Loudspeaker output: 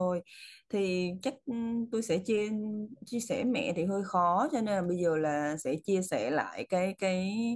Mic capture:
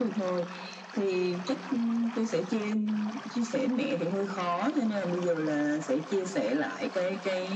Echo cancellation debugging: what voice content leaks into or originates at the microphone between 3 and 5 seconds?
echo only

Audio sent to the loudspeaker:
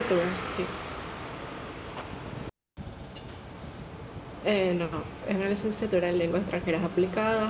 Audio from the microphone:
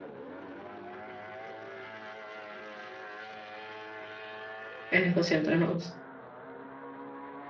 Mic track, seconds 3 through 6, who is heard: user only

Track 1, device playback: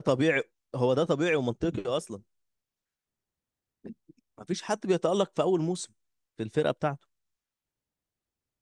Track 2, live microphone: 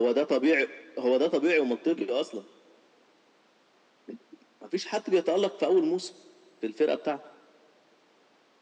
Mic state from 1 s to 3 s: echo only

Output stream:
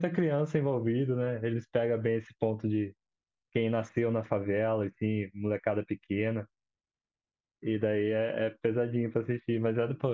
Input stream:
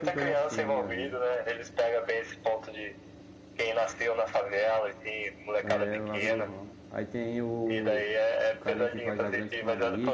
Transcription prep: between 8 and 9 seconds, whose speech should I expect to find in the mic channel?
both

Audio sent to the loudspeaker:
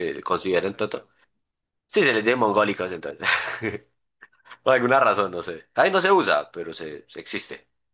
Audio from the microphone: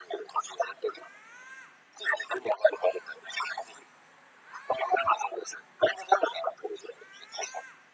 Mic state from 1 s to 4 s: echo only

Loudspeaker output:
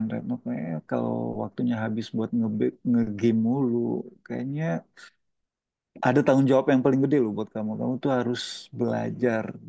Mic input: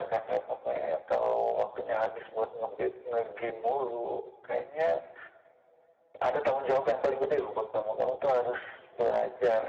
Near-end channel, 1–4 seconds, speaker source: echo only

